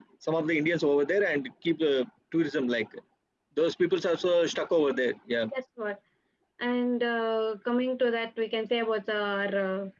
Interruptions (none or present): none